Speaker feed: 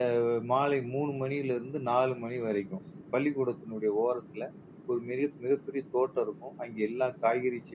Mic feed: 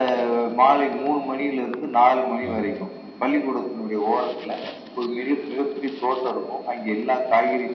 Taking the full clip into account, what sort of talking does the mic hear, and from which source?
both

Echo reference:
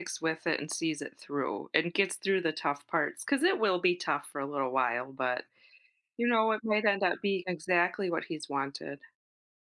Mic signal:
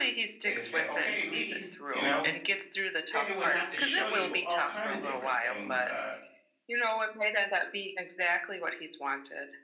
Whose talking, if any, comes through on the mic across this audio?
both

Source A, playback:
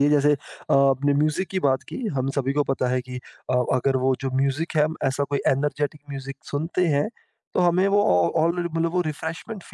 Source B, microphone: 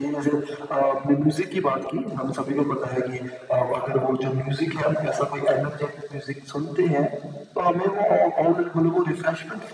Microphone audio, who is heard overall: echo only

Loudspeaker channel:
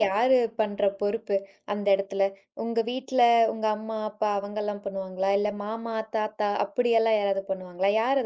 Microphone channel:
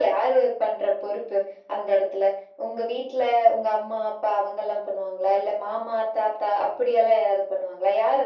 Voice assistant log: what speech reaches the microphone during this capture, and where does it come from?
echo only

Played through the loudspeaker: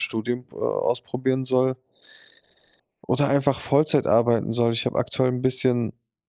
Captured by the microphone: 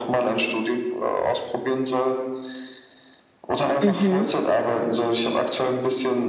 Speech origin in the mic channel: both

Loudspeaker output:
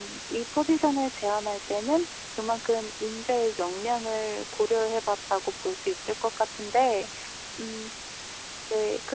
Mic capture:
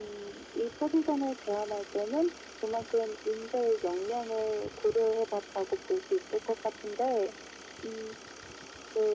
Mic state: echo only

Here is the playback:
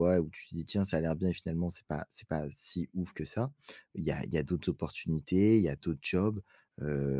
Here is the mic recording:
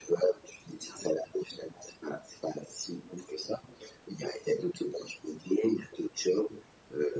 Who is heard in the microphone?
echo only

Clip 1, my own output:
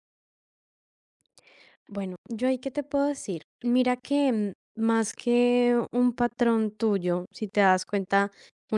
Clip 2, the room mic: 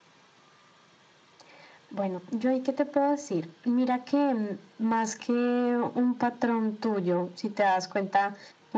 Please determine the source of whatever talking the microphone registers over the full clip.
echo only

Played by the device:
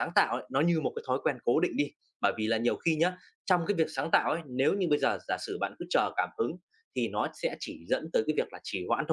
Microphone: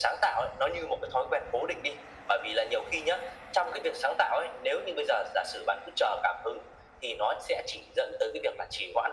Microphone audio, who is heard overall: echo only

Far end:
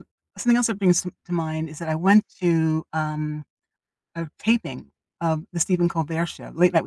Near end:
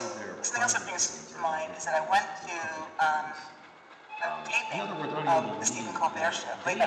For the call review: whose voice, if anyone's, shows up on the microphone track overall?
both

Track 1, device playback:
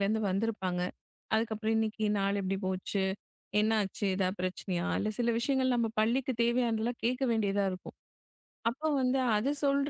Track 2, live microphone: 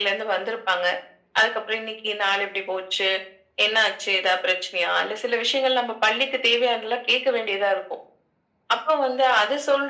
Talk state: echo only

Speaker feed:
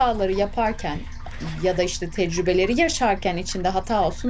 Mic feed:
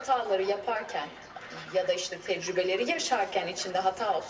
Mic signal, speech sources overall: echo only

